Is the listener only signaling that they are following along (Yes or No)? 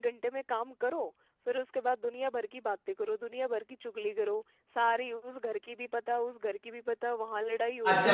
No